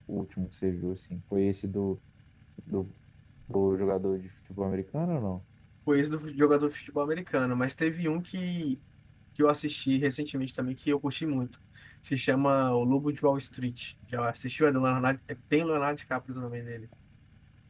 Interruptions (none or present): none